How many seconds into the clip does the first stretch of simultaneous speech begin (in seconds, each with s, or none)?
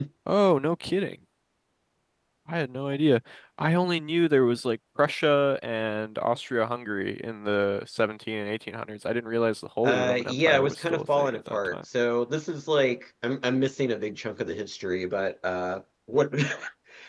9.8 s